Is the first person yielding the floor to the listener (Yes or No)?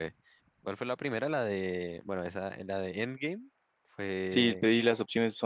Yes